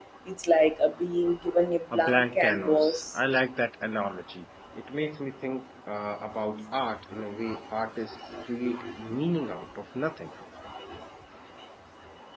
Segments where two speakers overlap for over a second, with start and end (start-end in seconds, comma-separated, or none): 1.9-3.2